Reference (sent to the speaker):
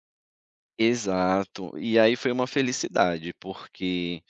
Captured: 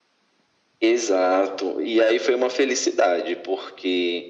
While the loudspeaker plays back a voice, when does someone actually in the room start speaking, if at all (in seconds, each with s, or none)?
none